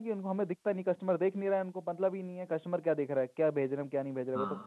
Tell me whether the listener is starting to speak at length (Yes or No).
No